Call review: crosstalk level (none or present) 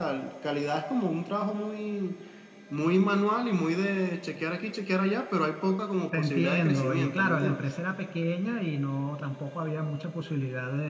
present